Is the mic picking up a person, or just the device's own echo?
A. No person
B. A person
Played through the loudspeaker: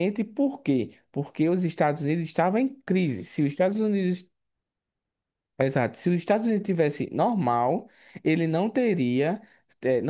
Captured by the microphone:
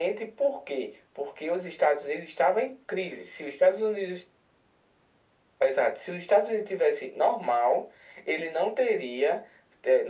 A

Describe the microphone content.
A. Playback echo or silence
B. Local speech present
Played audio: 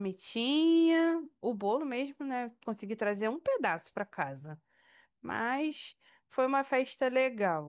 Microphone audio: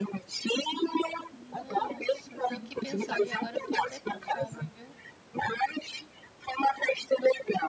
B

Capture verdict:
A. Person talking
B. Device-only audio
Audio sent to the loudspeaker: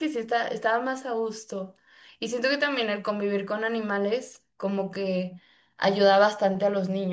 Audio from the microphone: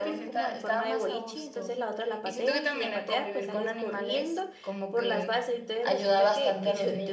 A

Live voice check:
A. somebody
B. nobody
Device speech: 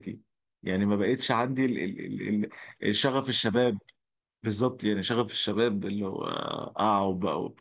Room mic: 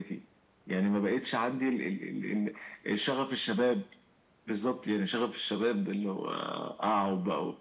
B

